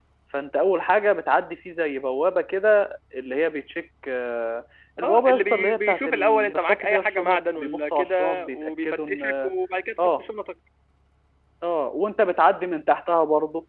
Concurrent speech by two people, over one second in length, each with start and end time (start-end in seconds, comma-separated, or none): 5.0-9.5